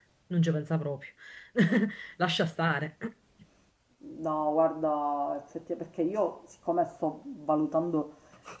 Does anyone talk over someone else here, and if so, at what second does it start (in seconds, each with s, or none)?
none